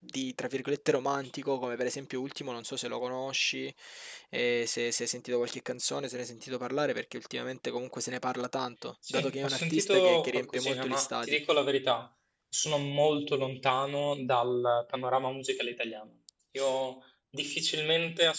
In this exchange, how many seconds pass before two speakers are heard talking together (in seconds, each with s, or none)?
9.0 s